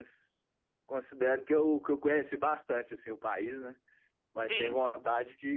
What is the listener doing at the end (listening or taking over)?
listening